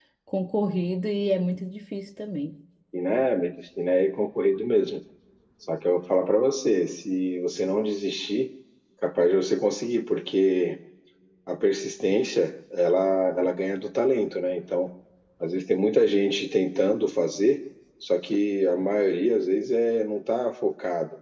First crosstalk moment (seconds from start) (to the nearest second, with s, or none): none